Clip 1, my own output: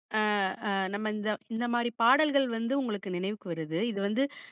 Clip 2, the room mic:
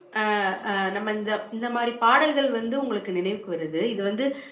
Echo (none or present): present